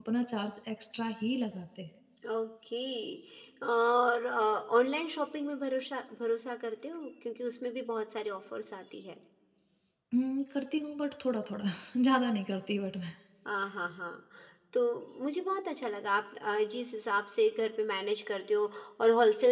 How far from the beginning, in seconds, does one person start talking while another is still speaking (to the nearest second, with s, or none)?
none